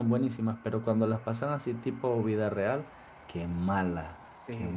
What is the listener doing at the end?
taking over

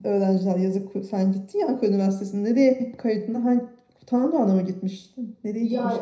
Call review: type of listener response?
taking over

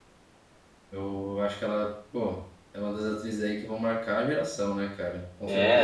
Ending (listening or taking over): taking over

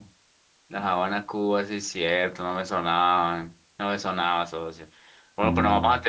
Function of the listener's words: listening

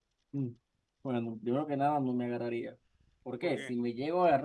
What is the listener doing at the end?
listening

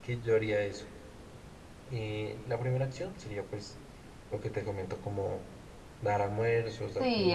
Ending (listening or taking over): taking over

